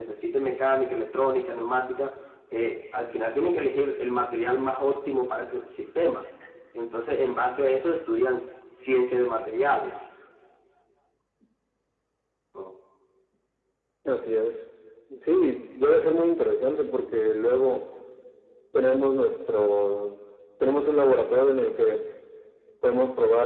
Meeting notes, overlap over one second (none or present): none